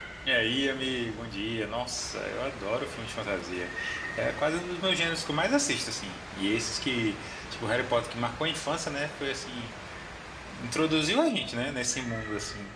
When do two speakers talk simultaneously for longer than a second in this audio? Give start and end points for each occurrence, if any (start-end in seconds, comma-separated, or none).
none